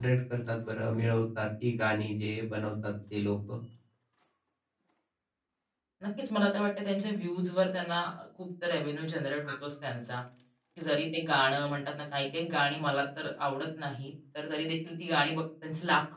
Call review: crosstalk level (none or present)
none